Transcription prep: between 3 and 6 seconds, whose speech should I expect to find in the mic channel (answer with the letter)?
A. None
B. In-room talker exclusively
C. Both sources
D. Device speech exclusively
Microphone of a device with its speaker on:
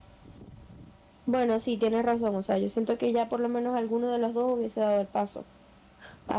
B